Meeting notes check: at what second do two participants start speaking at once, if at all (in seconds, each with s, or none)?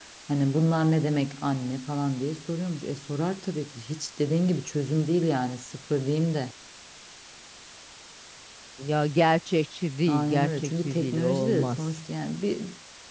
10.1 s